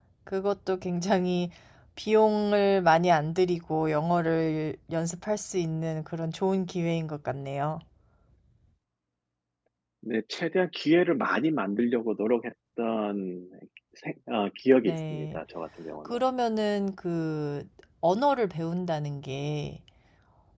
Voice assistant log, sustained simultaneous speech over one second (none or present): none